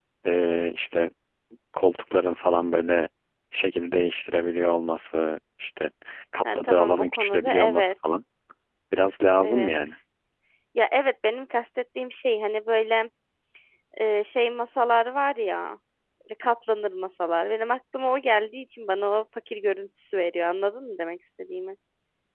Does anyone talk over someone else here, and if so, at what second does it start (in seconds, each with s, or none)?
6.4 s